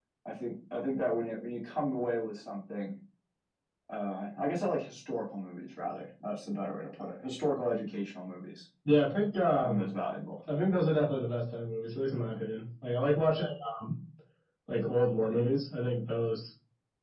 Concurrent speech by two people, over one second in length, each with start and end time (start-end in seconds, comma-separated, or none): none